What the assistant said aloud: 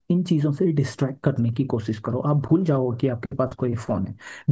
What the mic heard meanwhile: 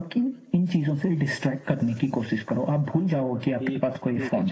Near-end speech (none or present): present